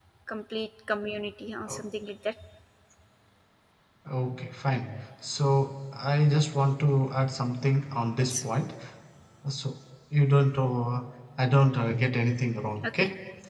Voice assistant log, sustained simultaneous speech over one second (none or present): none